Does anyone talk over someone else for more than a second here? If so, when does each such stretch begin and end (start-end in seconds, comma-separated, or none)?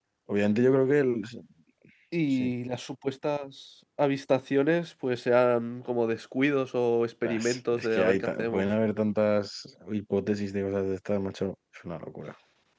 7.2-8.7